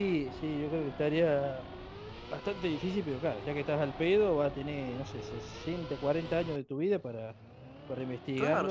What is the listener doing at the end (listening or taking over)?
taking over